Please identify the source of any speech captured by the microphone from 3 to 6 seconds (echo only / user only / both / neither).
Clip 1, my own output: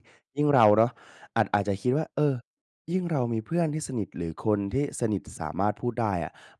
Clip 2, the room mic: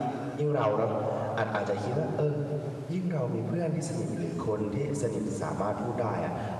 echo only